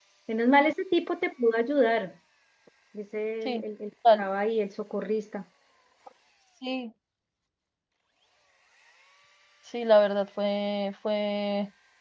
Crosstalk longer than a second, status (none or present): none